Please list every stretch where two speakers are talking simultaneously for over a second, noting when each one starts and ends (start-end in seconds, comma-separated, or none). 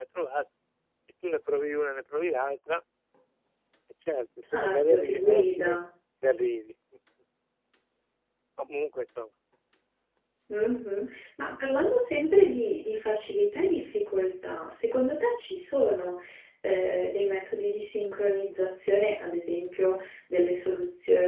4.5-5.8